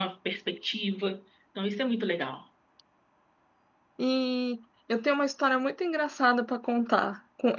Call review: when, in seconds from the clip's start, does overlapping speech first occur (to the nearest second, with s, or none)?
none